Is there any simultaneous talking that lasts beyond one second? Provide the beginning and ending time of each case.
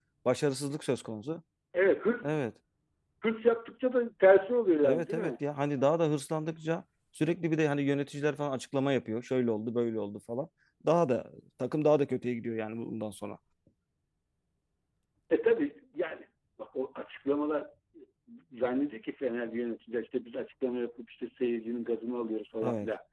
none

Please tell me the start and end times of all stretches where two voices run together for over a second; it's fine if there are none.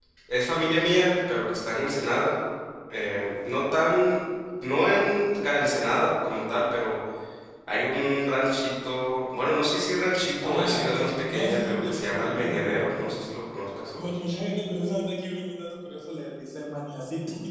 10.4-13.2

